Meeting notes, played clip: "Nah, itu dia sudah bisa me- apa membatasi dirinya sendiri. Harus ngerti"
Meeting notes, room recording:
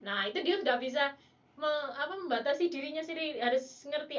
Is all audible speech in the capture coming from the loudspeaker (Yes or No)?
Yes